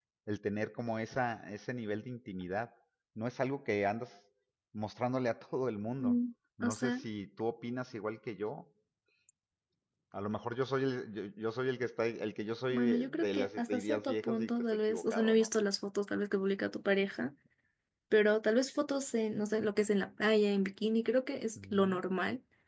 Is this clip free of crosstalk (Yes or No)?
No